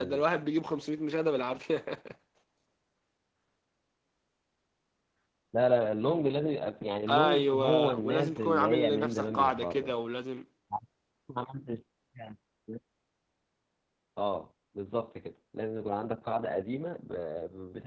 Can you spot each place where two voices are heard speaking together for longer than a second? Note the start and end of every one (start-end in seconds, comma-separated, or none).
7.1-9.9